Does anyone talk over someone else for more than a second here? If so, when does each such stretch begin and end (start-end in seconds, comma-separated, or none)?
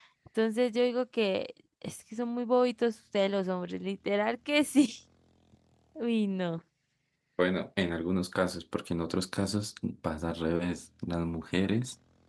none